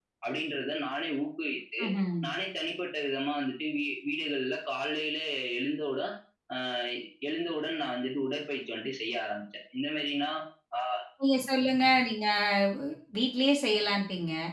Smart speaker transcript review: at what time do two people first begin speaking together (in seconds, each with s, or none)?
none